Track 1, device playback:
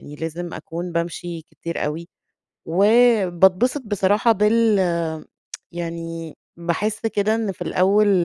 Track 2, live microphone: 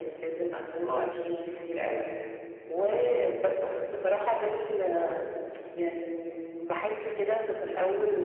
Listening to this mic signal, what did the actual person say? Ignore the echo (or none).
آه، امم،